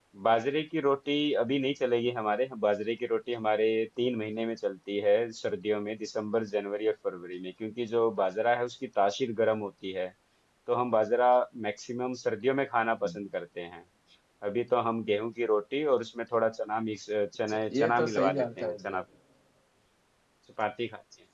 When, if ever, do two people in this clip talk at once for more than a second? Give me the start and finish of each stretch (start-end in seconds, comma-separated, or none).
17.5-19.0